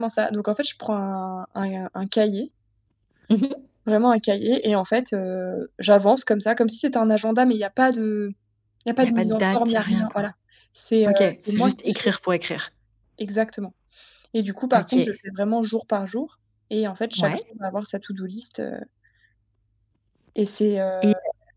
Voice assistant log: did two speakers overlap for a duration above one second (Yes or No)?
Yes